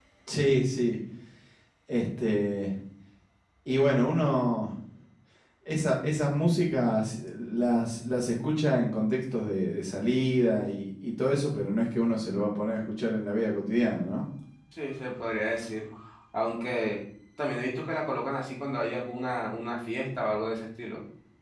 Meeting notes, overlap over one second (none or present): none